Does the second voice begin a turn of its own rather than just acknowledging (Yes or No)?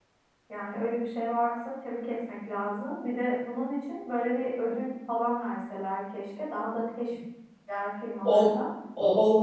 Yes